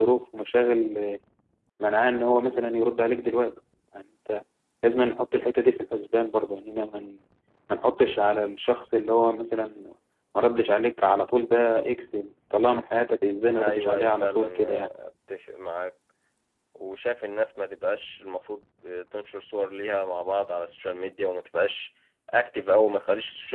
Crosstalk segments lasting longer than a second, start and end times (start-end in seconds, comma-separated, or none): 13.6-14.9